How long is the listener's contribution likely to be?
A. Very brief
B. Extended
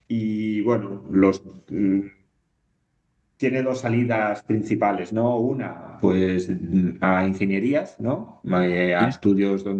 A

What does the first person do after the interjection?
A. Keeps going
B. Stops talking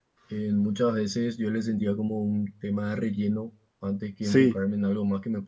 A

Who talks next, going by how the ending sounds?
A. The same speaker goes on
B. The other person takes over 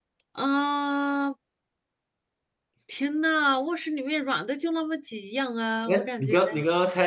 B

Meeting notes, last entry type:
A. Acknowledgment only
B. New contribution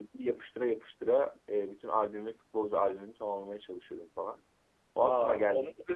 B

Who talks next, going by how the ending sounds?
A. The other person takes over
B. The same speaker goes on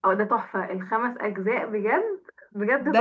A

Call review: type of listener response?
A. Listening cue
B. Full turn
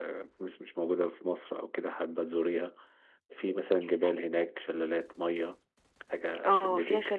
B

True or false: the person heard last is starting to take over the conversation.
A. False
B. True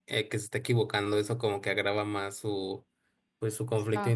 A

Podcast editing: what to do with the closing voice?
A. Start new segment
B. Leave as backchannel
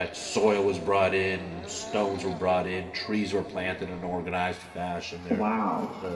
A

